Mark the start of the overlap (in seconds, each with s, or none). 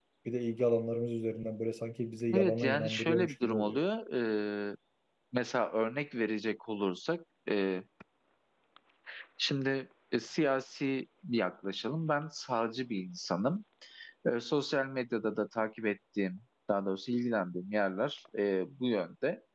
2.3 s